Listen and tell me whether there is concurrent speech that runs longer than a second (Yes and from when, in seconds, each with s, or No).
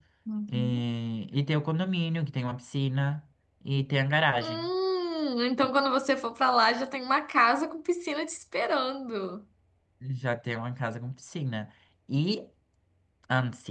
No